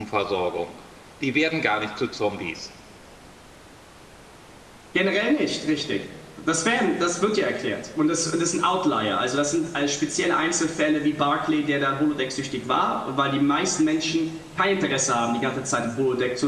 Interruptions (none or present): none